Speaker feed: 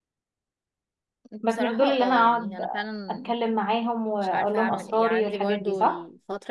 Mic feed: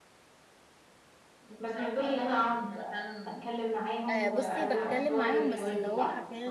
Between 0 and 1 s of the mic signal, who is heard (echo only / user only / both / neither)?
neither